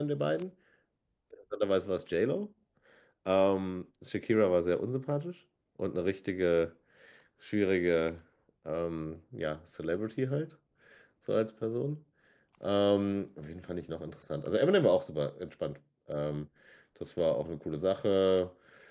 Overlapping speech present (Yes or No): No